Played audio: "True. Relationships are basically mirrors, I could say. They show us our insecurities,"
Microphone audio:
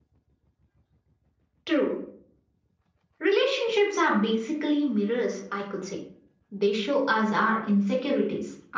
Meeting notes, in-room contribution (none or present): none